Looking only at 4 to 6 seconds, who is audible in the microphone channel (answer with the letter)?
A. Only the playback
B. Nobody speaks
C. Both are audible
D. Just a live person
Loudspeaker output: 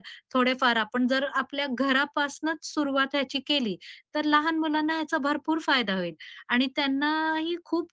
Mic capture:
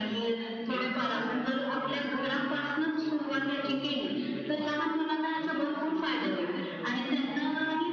C